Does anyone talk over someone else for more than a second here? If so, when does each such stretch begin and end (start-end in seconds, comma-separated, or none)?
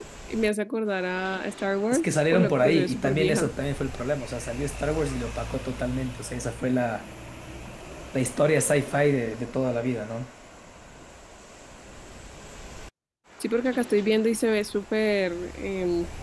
1.9-3.5